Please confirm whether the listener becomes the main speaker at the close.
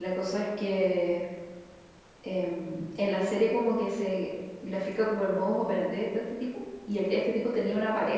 No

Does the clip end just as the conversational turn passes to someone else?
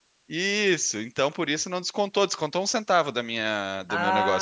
Yes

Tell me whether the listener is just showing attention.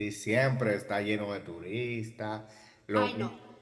Yes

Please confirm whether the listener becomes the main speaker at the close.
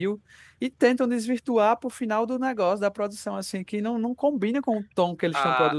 Yes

